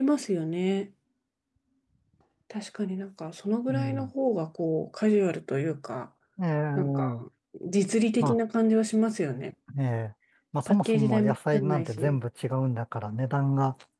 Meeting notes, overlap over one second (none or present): present